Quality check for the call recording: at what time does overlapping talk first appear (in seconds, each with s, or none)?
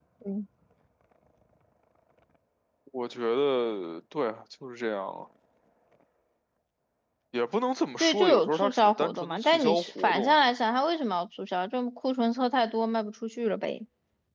8.0 s